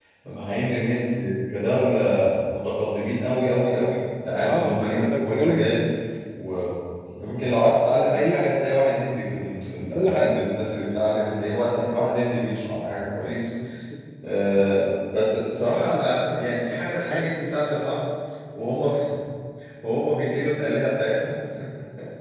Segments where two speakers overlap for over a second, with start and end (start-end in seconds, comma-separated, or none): 4.4-5.8